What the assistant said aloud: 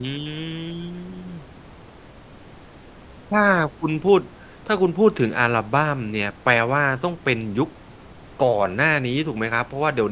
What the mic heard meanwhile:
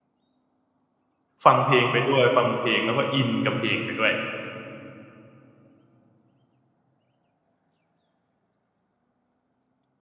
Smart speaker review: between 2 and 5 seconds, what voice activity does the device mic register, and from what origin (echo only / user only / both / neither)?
user only